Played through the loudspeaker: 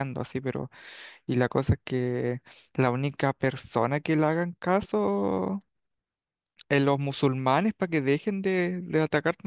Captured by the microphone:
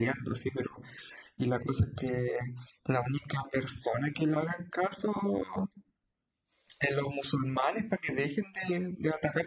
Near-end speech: none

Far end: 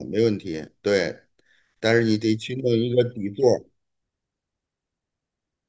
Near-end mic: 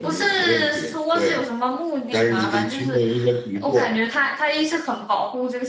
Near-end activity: present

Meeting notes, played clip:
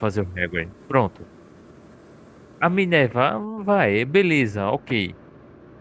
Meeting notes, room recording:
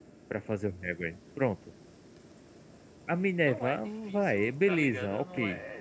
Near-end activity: present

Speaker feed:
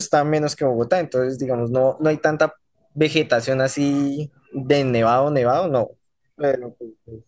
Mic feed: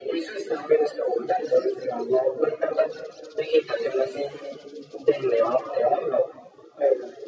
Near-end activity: none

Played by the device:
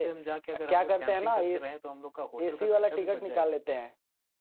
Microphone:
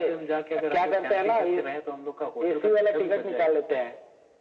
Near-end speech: none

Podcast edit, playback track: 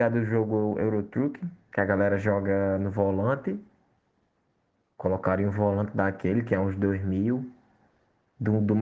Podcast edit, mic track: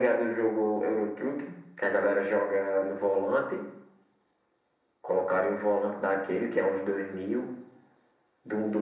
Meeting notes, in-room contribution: none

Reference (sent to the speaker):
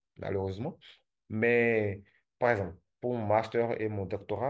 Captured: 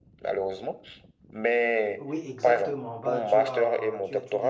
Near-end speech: present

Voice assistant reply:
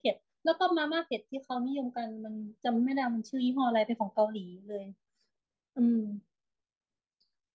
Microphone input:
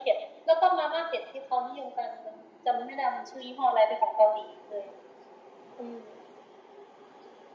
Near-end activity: none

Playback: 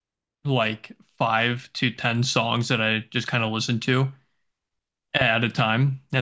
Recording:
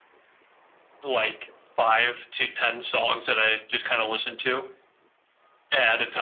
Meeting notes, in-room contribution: none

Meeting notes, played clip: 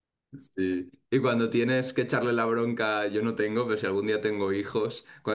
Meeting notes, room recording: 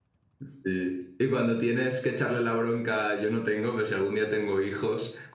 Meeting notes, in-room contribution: none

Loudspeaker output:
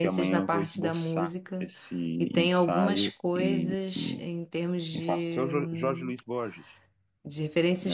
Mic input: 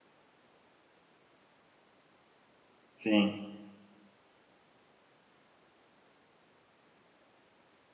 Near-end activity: present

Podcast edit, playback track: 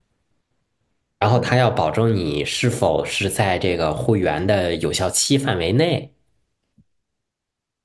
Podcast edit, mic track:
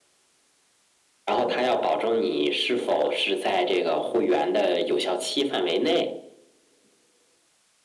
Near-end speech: none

